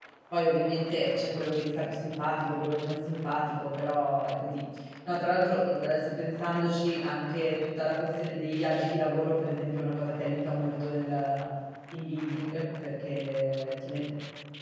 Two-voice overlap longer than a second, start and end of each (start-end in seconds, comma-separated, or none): none